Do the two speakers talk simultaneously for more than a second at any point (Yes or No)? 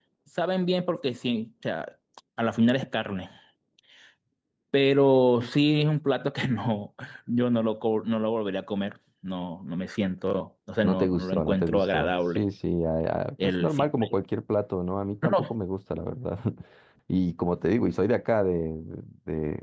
Yes